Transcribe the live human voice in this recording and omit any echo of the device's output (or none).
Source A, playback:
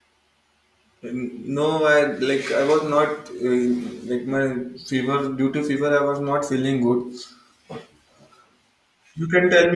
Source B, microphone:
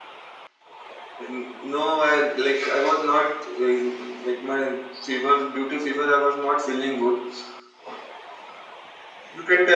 none